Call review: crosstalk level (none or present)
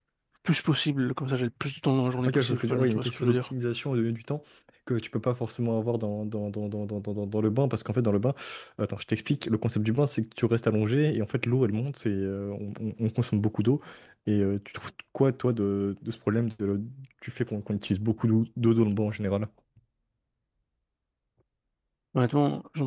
present